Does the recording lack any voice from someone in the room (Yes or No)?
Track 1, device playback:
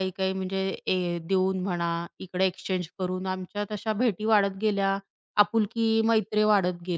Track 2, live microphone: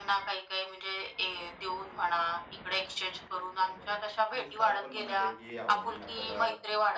No